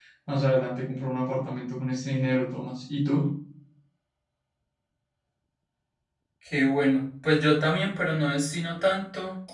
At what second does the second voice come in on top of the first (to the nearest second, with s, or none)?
none